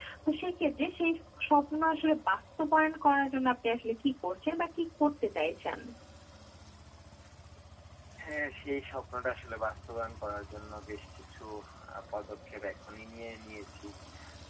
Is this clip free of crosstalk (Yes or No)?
Yes